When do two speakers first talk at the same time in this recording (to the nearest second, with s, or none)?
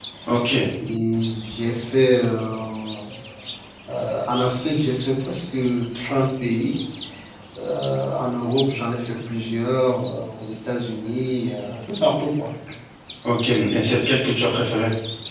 none